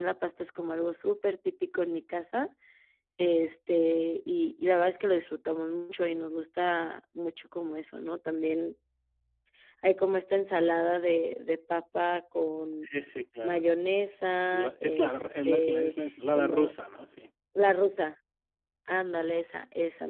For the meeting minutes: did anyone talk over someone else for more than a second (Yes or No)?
Yes